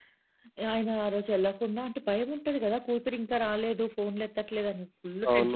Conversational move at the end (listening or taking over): taking over